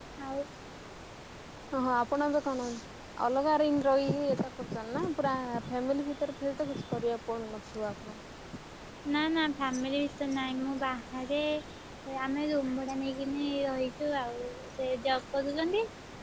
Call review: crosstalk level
none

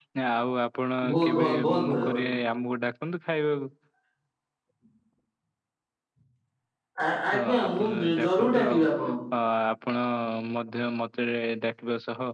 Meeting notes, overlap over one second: present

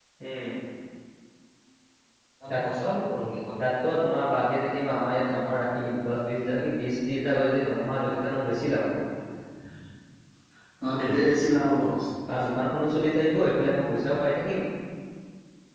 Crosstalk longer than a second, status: none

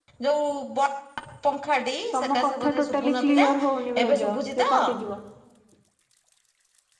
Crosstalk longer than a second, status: present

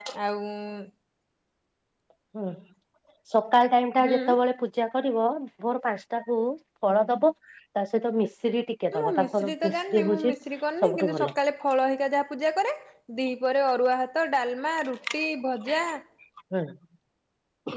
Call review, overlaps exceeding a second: present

